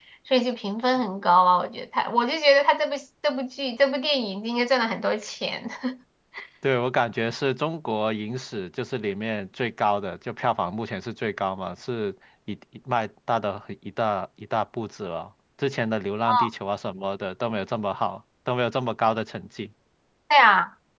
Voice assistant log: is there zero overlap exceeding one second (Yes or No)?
Yes